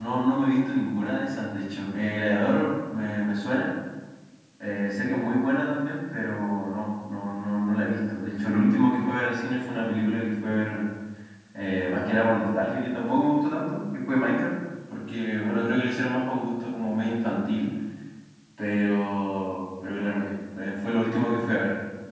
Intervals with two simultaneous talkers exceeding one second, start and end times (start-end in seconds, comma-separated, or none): none